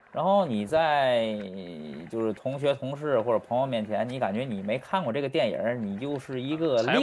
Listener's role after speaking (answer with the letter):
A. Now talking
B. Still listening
A